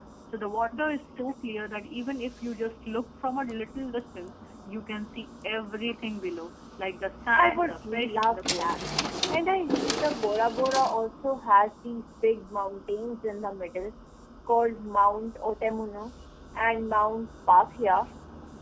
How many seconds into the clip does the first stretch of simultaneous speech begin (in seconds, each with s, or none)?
7.3 s